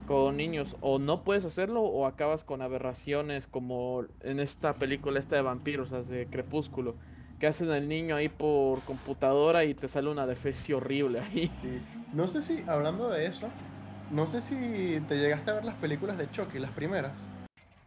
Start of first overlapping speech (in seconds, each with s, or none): none